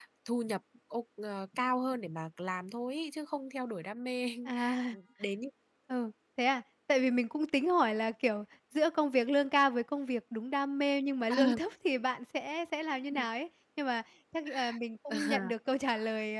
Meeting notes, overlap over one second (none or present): none